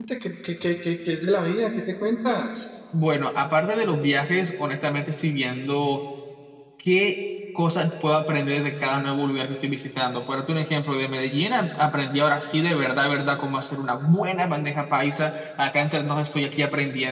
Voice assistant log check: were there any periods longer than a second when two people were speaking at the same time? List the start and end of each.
none

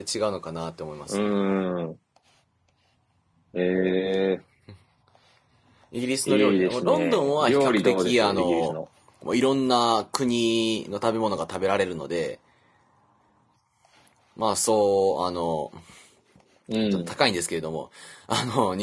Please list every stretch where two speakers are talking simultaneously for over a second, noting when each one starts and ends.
6.3-8.7

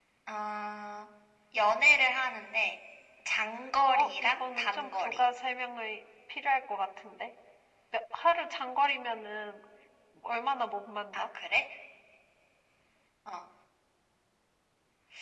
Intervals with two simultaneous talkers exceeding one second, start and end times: 3.9-5.2

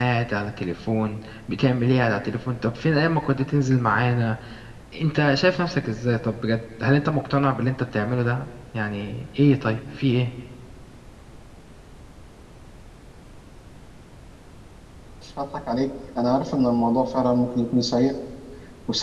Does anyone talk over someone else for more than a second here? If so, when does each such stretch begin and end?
none

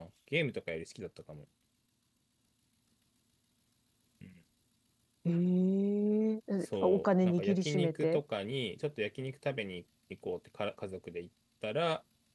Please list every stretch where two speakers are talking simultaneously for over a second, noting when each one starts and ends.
6.8-8.2

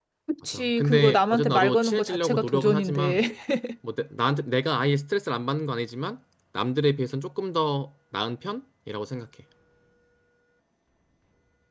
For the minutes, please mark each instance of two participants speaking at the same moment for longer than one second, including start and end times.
0.5-3.2

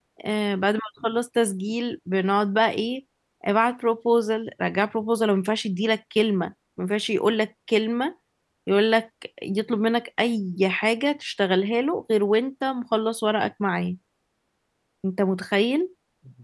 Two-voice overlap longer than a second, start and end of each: none

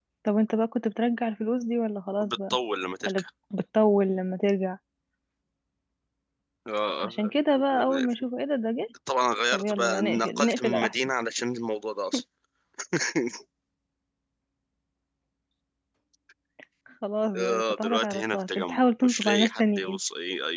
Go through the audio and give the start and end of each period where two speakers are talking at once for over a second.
9.5-10.9, 17.4-20.0

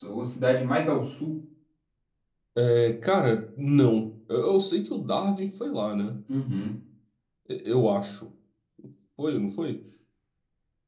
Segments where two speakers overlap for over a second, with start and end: none

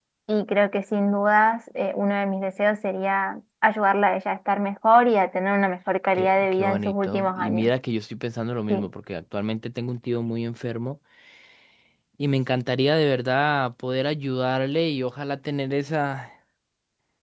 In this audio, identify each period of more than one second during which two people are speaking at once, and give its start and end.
6.2-7.7

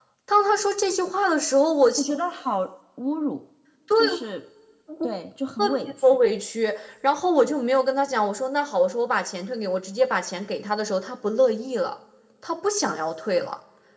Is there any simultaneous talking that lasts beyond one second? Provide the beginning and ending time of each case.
none

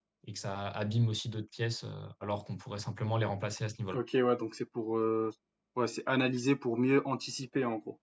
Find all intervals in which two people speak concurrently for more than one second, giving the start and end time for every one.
none

